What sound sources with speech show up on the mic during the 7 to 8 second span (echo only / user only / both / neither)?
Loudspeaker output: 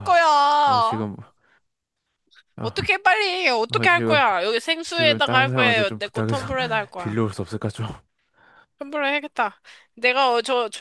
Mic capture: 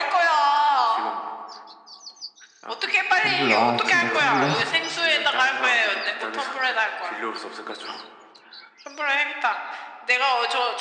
echo only